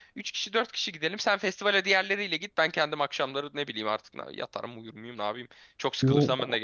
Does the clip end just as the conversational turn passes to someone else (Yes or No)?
Yes